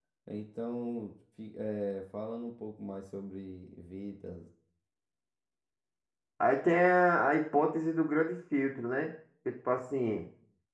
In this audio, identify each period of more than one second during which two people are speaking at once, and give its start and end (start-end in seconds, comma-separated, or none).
none